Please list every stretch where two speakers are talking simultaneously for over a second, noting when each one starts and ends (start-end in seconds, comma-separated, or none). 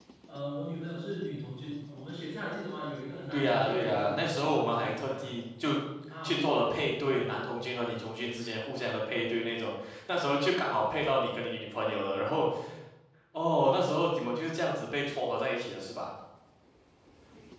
3.3-5.3